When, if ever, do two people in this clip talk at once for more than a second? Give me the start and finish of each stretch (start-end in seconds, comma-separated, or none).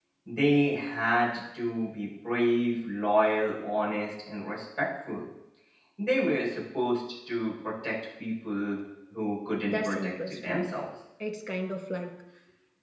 9.6-10.9